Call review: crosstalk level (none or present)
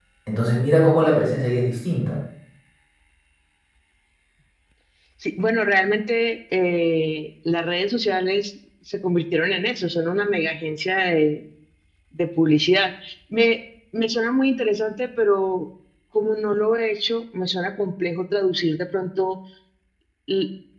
none